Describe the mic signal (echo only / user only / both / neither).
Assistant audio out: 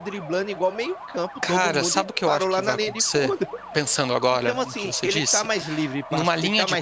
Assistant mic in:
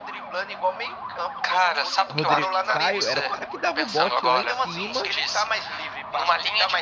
both